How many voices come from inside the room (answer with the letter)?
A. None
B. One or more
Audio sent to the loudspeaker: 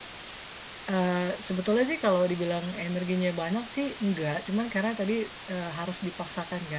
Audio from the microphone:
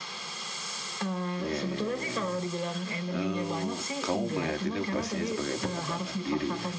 B